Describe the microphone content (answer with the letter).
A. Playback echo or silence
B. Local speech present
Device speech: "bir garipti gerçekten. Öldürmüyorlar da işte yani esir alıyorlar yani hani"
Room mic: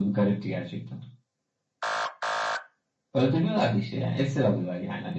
A